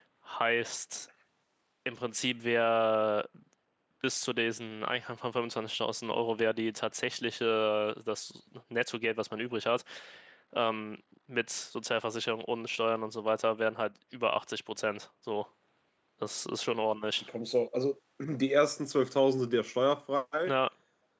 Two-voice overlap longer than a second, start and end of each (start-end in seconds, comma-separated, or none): none